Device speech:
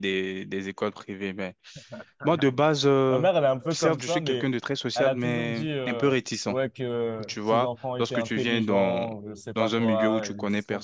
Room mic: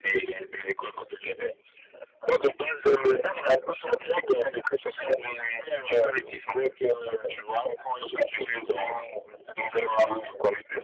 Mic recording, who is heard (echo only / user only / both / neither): echo only